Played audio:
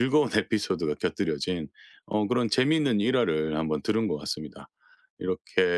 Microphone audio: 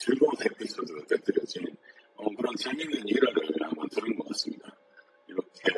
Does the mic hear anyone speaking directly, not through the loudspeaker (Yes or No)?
No